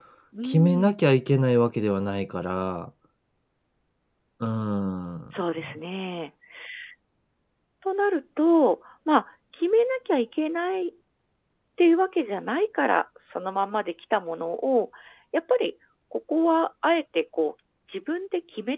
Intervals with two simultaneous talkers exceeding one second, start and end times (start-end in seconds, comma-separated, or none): none